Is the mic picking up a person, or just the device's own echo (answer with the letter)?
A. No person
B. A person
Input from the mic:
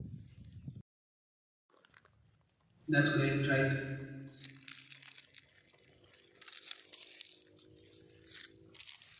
B